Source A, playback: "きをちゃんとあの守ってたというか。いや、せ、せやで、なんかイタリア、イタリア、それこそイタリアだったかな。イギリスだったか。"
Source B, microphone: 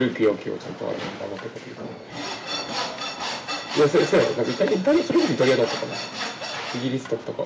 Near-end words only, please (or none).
none